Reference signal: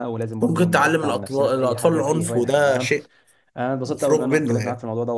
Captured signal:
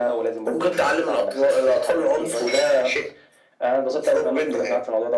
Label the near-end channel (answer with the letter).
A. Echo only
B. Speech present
A